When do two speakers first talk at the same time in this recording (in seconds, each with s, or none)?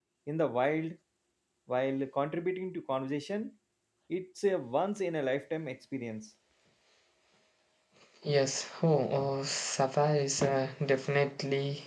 none